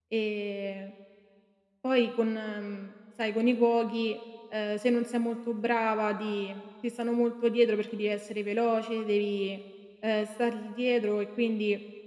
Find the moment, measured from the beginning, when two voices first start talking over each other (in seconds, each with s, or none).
none